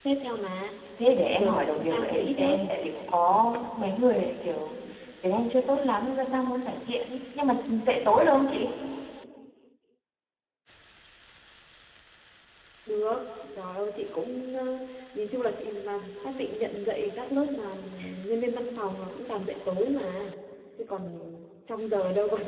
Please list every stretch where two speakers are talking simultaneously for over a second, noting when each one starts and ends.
1.4-2.6

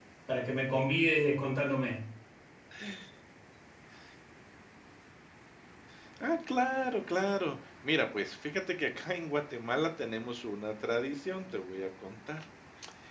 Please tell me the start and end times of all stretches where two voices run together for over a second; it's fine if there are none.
none

